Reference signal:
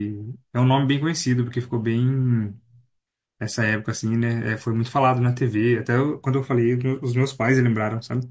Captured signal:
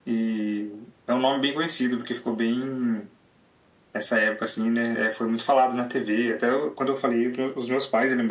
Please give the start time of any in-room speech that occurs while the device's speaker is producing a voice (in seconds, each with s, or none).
none